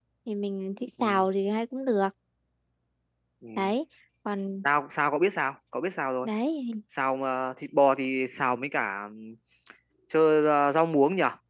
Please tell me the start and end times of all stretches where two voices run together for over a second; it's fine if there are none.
none

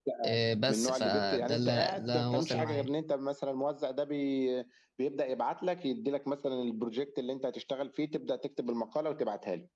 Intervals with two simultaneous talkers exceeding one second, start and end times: 0.7-2.9

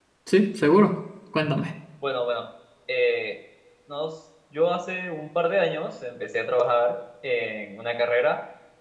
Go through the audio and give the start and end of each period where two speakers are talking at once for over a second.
none

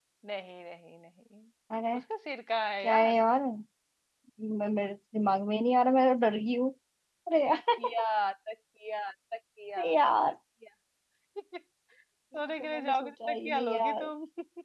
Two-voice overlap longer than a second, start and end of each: 12.6-14.1

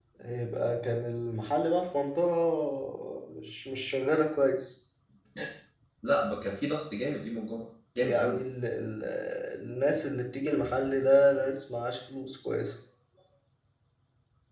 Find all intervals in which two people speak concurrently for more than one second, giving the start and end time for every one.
none

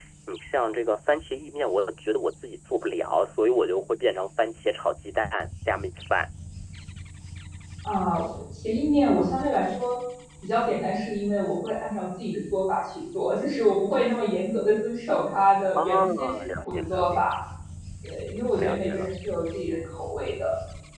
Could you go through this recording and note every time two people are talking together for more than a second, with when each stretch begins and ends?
15.8-17.3

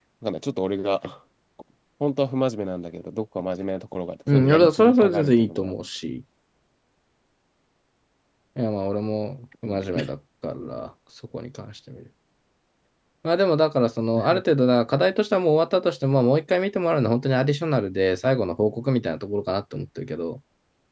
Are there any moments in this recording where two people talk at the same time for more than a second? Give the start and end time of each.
4.3-5.7

